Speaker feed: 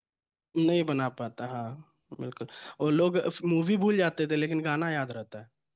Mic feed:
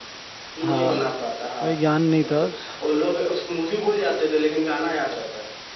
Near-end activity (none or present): present